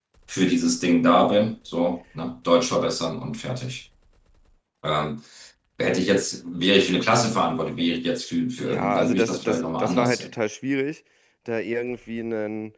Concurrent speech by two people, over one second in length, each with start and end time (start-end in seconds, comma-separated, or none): 8.7-10.3